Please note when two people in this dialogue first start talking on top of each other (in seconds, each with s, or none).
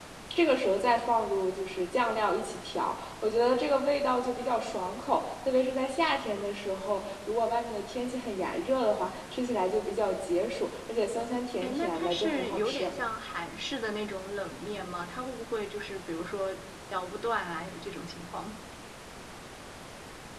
11.6 s